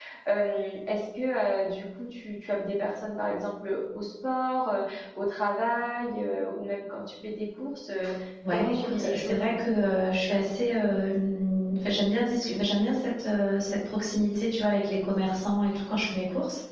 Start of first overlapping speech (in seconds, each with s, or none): 8.4 s